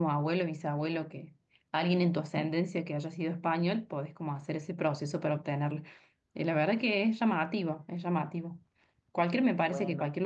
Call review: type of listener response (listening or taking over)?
listening